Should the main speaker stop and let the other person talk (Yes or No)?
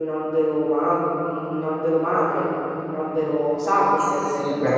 Yes